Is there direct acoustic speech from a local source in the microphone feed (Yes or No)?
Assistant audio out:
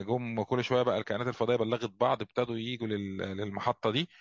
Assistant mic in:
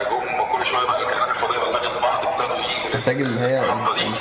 Yes